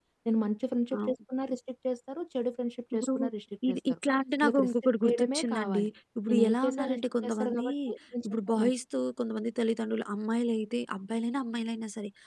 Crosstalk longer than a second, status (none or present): present